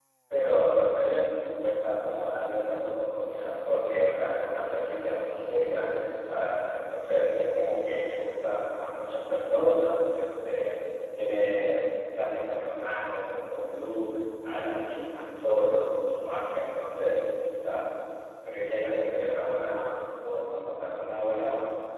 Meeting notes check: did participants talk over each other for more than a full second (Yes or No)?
No